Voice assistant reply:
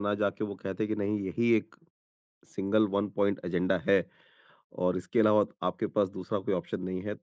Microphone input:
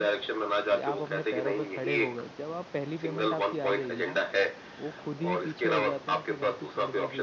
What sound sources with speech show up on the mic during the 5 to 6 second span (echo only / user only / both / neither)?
both